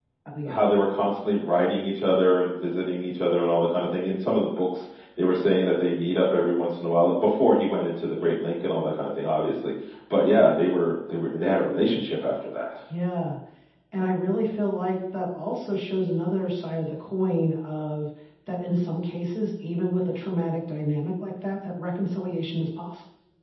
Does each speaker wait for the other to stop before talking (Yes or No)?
Yes